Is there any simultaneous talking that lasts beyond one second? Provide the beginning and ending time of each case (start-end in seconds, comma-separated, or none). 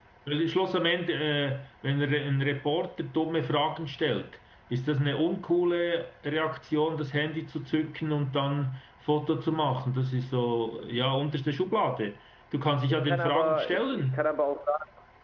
12.9-14.3